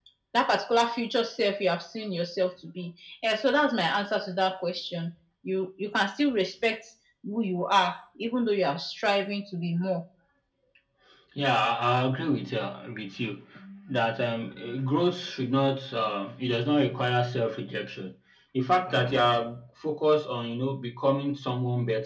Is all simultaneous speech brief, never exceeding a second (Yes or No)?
Yes